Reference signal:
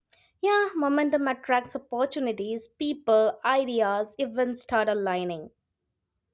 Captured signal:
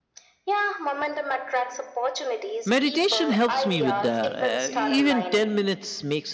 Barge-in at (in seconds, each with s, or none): 2.6 s